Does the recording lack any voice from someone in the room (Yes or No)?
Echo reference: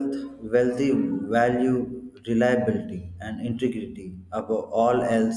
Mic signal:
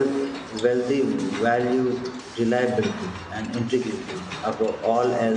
Yes